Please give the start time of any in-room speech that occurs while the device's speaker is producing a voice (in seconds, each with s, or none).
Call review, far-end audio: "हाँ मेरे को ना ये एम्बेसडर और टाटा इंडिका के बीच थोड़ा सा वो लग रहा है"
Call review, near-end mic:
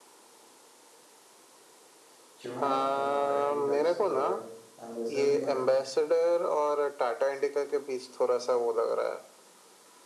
2.4 s